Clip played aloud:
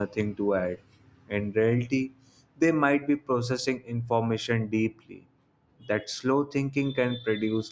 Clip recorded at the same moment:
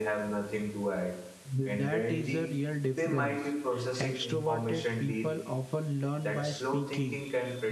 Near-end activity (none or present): present